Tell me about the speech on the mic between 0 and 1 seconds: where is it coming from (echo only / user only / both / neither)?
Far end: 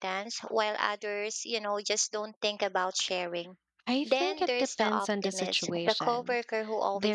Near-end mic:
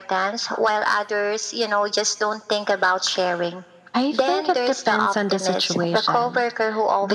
echo only